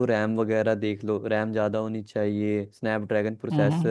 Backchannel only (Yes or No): Yes